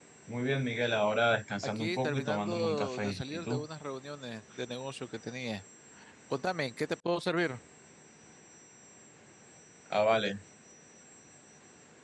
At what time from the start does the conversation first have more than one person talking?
1.8 s

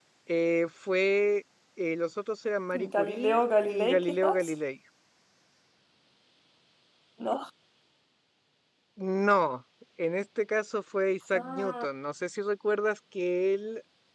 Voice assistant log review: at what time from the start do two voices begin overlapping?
3.0 s

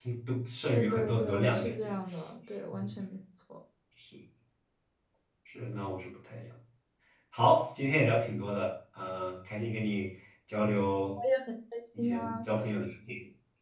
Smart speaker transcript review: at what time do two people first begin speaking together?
0.7 s

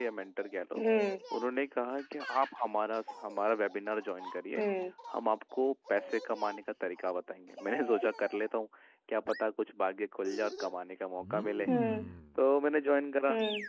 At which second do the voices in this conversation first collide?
none

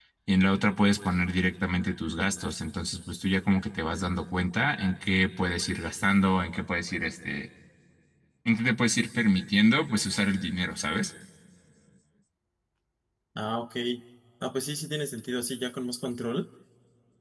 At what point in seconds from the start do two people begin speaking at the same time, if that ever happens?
none

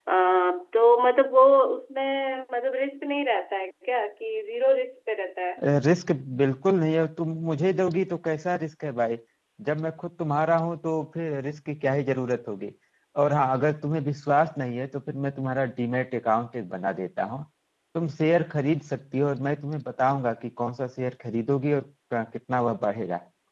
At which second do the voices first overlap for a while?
none

